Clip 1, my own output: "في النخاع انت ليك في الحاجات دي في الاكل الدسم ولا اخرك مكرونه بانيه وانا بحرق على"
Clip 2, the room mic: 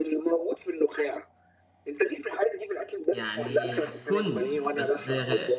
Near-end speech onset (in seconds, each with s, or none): 3.1 s